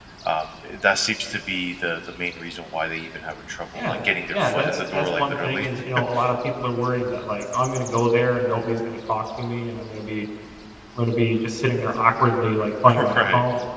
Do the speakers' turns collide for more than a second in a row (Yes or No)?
Yes